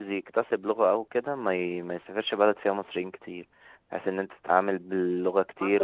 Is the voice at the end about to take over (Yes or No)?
Yes